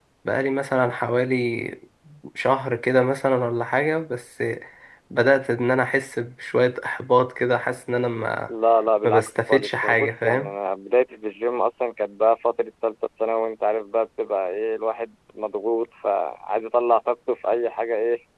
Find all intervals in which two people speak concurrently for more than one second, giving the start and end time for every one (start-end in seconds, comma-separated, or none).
9.1-10.5